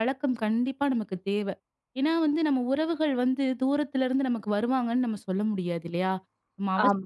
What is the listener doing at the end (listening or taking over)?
listening